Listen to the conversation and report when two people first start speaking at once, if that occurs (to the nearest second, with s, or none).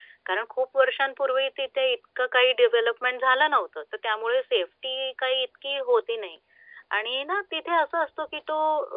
none